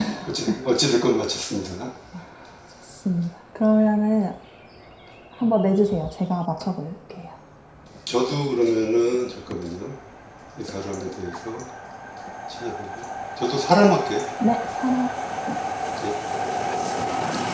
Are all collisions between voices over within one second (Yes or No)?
Yes